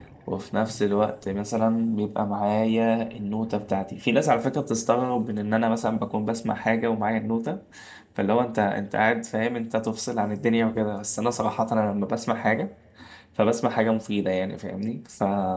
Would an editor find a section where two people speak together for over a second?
No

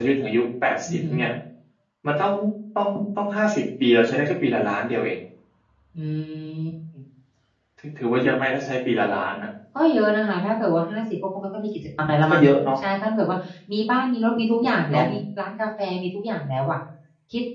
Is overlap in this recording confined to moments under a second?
Yes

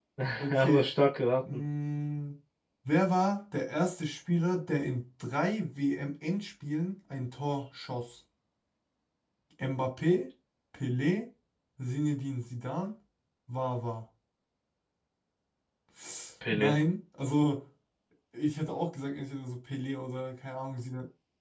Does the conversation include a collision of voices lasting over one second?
No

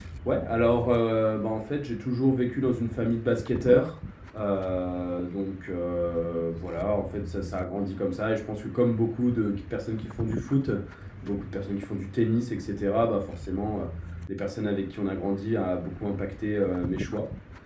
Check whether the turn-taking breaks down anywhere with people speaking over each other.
No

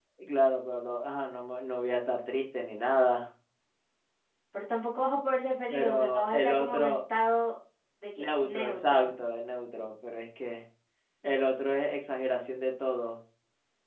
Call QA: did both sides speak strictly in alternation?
No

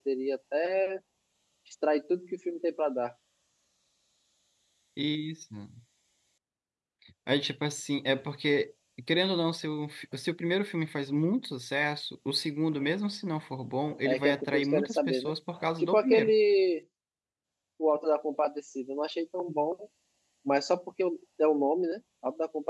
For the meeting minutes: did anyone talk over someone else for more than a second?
Yes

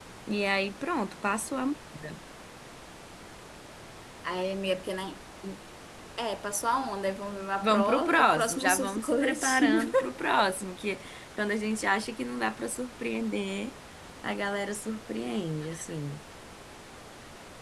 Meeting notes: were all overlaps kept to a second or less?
No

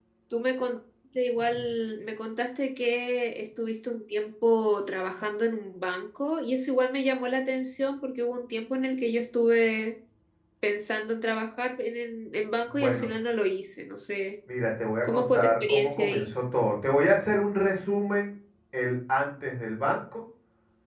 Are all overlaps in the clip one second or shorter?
No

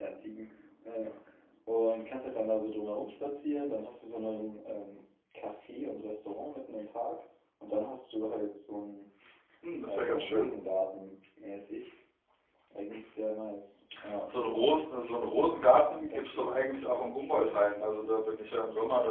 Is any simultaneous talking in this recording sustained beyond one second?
Yes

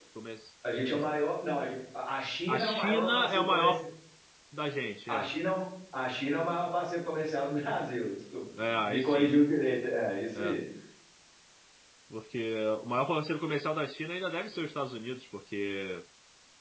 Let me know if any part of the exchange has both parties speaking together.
Yes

